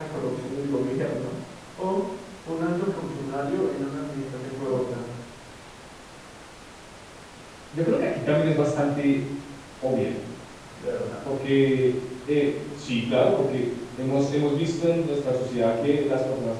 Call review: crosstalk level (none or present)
none